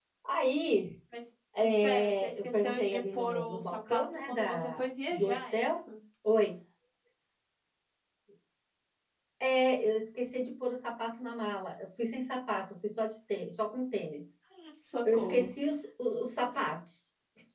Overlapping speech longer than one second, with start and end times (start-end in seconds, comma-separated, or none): 1.6-5.8